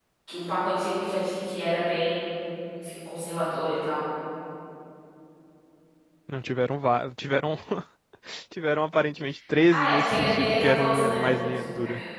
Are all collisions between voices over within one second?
No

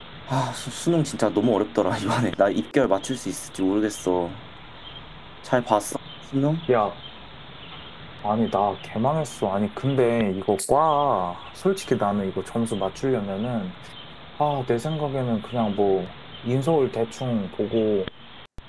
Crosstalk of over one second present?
No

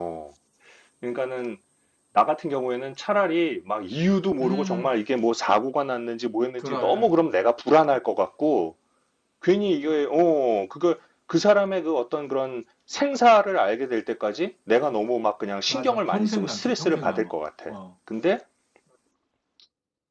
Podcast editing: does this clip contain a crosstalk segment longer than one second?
Yes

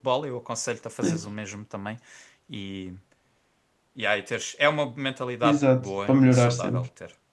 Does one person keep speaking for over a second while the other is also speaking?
Yes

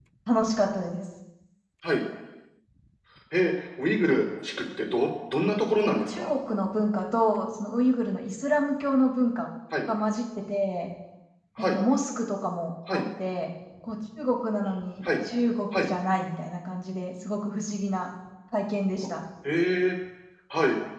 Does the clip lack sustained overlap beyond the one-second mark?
Yes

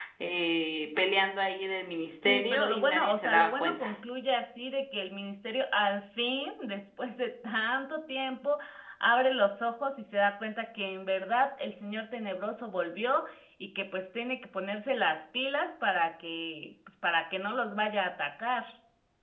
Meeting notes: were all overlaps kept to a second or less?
No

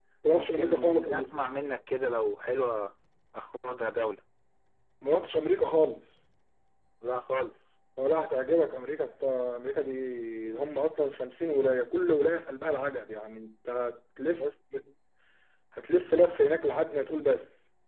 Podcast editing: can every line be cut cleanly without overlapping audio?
No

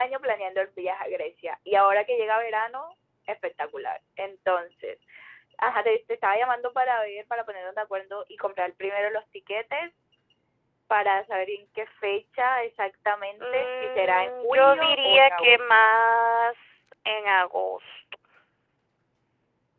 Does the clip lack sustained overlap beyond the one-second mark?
No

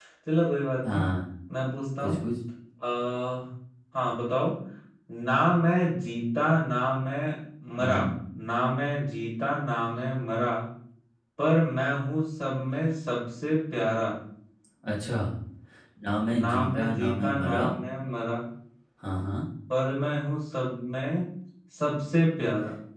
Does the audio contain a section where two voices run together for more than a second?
Yes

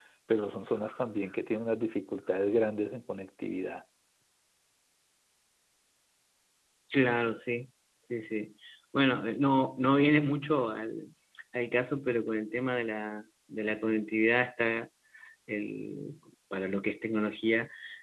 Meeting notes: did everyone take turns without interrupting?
Yes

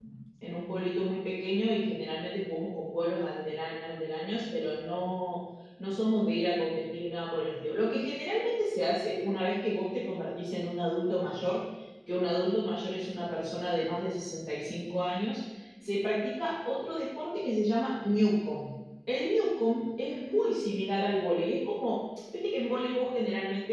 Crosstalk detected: No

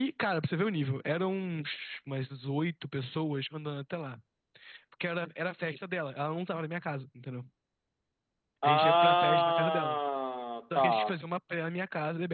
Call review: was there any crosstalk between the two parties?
Yes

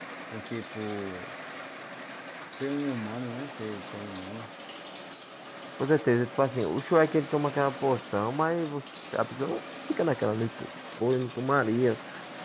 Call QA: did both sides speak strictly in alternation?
Yes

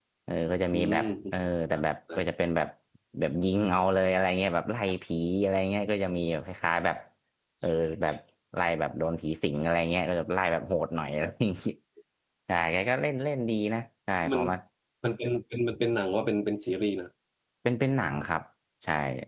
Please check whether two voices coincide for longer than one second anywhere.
No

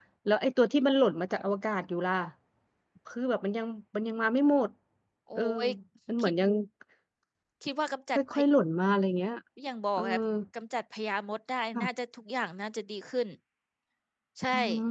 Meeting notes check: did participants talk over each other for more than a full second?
No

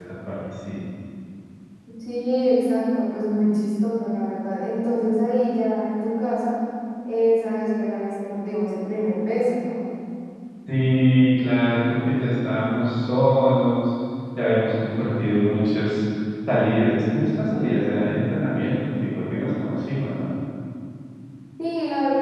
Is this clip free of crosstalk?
Yes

